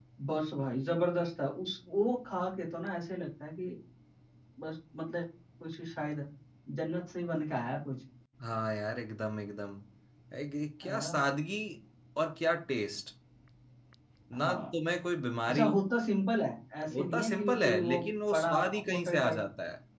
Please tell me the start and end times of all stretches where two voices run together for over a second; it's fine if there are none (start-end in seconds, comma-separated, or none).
16.9-19.4